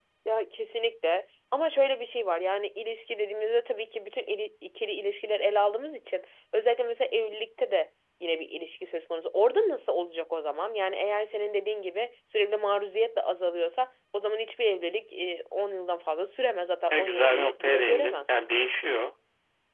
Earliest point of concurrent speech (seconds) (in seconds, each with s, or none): 16.9 s